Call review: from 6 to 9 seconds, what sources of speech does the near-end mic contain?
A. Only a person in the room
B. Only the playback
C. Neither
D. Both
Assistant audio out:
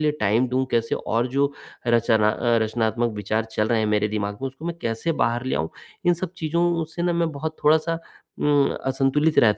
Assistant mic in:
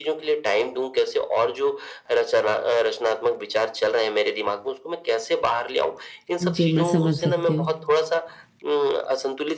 D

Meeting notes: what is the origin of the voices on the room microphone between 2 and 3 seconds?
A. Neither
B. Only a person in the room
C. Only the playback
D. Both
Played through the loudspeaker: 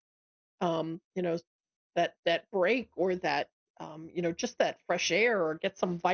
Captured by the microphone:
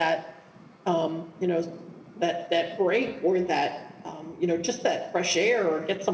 C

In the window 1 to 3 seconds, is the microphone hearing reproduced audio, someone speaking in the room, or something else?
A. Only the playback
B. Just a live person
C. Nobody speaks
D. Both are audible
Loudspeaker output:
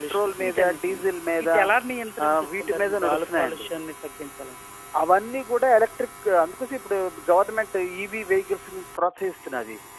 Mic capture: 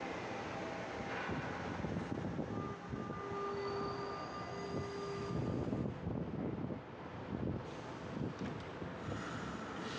C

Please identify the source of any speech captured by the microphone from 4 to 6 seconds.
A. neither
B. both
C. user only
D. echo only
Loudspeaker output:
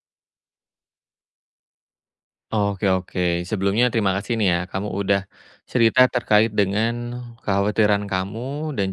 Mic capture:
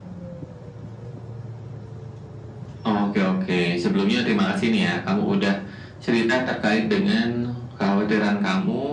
D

